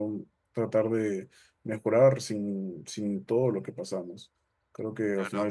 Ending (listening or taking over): listening